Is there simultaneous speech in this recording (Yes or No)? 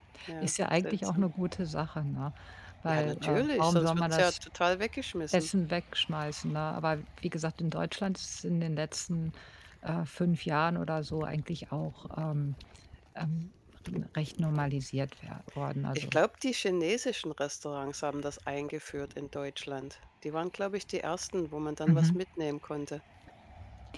Yes